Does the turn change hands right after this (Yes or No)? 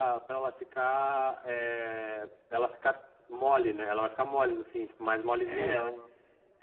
Yes